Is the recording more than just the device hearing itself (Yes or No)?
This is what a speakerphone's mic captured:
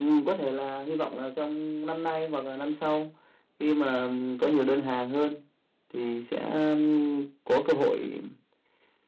No